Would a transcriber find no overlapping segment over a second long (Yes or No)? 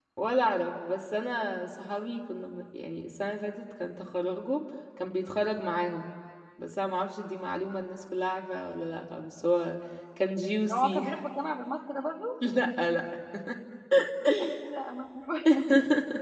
Yes